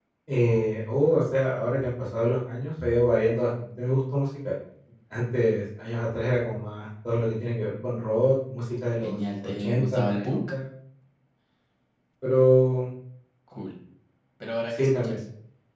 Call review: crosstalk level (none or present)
present